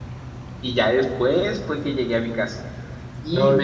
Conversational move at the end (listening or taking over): listening